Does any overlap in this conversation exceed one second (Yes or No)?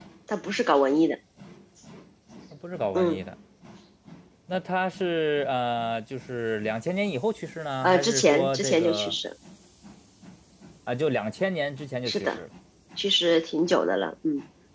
Yes